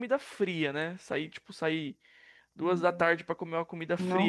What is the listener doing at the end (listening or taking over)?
listening